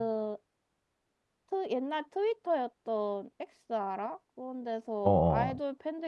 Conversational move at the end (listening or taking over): listening